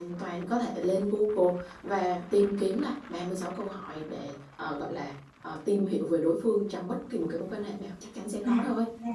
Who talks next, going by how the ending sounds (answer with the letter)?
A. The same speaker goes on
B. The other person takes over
B